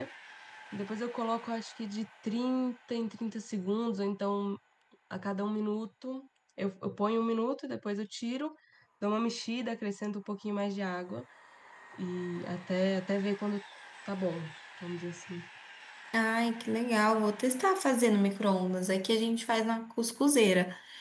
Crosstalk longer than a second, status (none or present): none